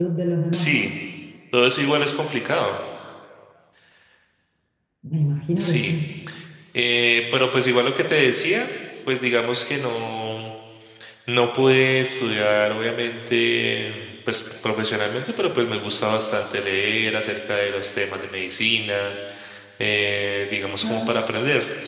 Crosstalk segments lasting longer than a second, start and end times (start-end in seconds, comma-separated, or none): none